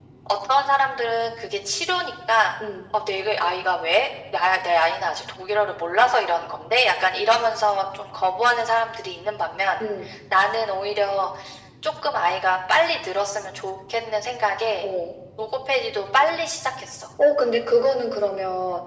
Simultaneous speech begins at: none

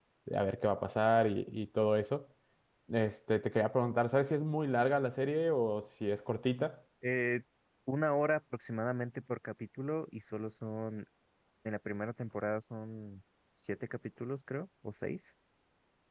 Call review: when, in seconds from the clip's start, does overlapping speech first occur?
none

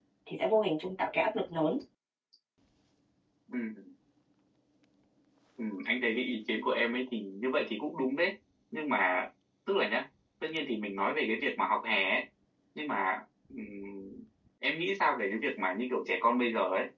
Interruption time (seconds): none

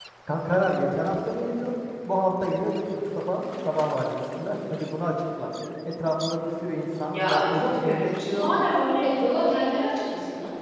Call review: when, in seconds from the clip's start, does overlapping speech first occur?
7.0 s

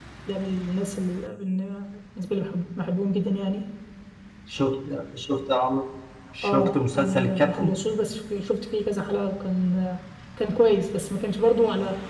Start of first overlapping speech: 6.4 s

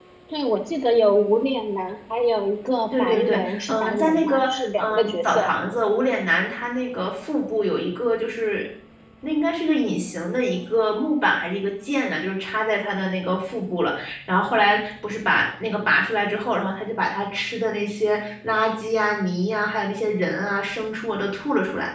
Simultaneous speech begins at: 2.9 s

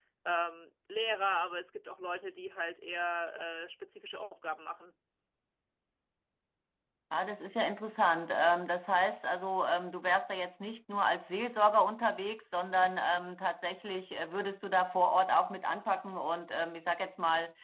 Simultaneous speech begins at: none

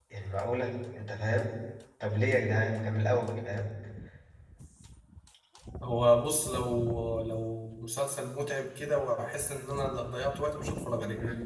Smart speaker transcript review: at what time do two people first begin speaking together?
none

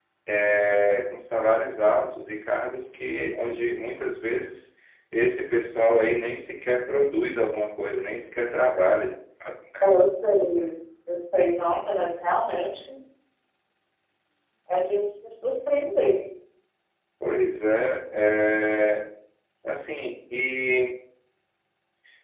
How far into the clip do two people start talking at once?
none

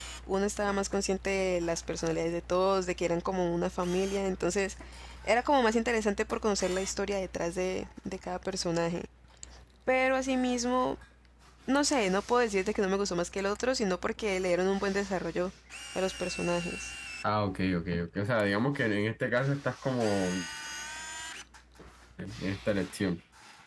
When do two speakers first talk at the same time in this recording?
none

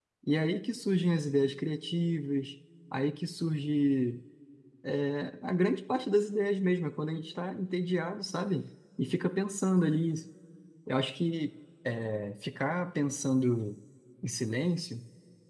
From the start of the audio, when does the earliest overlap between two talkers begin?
none

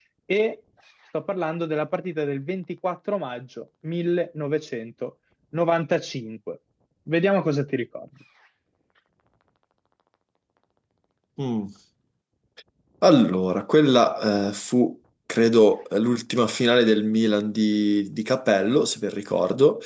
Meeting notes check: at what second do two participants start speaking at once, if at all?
none

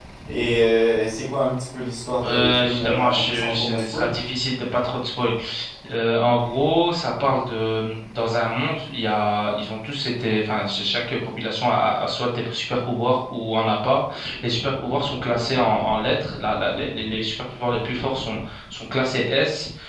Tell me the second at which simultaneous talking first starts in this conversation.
2.2 s

